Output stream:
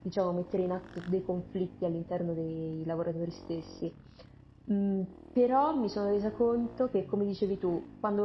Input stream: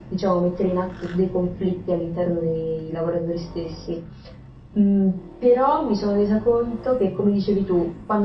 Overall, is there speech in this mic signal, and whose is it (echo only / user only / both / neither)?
echo only